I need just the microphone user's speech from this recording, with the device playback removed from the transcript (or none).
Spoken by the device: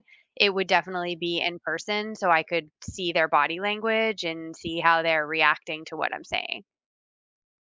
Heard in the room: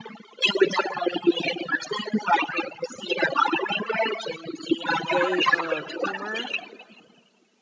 way of humor.